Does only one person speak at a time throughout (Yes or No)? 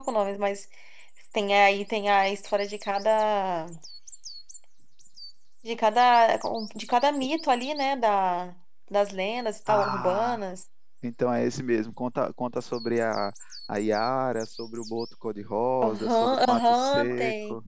No